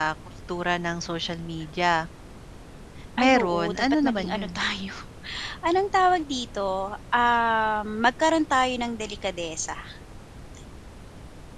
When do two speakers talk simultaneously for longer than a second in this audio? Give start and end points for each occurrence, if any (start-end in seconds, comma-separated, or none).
3.2-4.5